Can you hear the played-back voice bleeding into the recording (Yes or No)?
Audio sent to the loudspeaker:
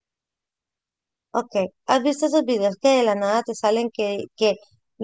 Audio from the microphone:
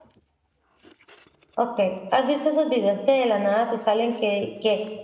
Yes